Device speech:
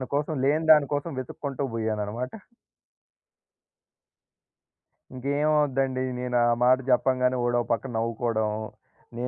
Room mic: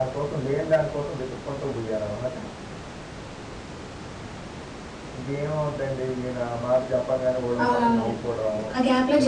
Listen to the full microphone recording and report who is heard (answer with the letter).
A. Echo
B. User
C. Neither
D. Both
D